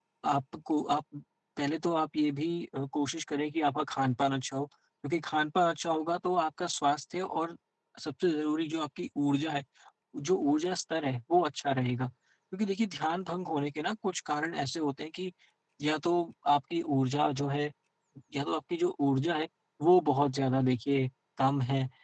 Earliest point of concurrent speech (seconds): none

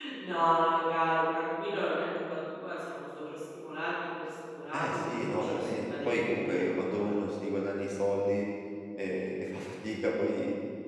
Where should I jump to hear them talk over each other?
4.7 s

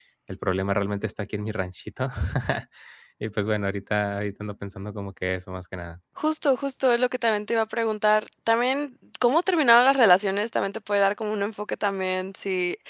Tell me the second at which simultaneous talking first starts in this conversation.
none

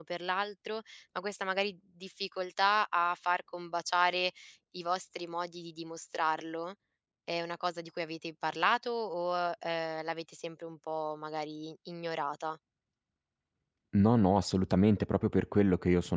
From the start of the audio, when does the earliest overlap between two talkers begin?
none

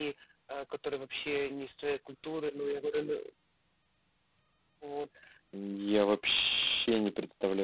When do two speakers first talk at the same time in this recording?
none

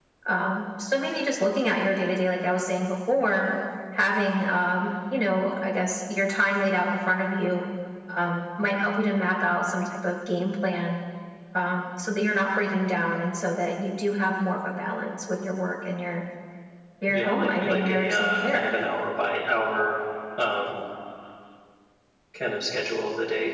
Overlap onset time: 17.1 s

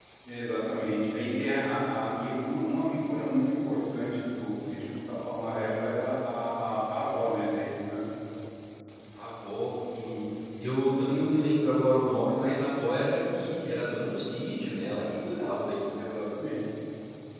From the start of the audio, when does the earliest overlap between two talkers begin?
none

